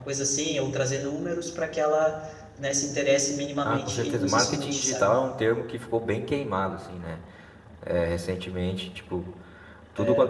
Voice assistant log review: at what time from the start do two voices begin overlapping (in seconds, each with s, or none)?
3.6 s